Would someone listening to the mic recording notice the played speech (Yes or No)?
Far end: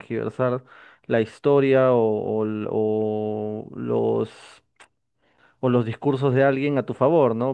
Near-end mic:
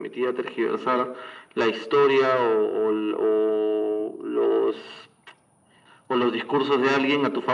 Yes